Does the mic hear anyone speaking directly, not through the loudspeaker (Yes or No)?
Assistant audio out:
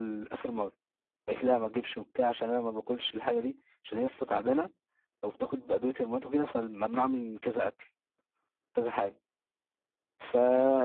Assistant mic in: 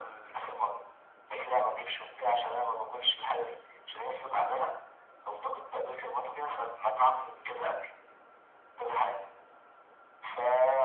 No